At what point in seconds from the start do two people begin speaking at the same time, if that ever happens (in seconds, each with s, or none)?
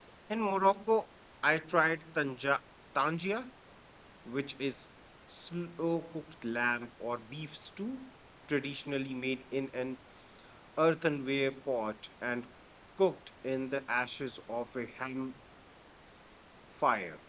none